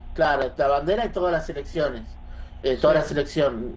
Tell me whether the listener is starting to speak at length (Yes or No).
No